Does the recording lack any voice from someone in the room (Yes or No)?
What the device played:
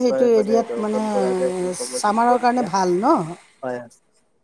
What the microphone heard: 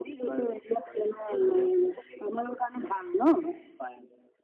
Yes